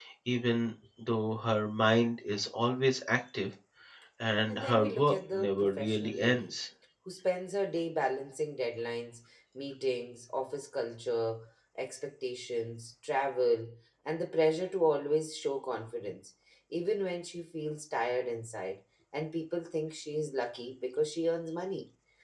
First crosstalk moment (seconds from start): 4.5 s

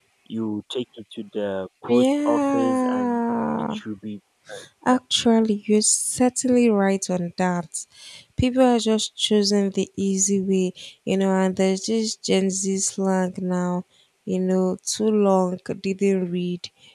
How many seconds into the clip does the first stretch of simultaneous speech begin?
1.9 s

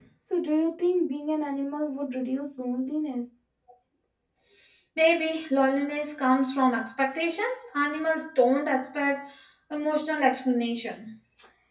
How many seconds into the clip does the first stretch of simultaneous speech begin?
none

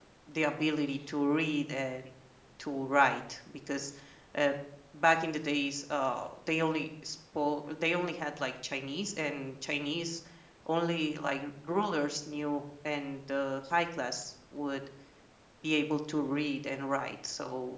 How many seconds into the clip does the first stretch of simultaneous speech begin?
none

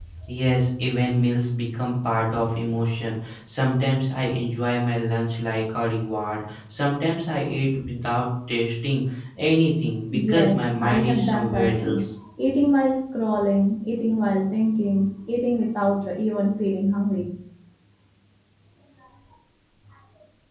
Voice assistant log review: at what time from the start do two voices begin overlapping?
10.1 s

